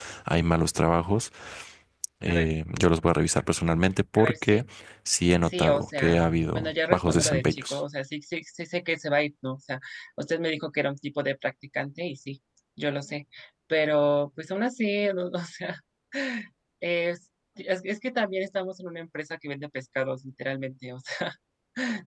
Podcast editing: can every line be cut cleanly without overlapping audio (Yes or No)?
No